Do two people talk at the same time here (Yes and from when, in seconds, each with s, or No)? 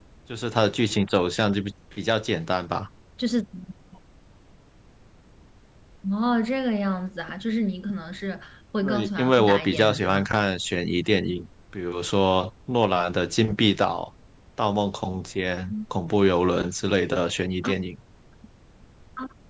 Yes, from 8.8 s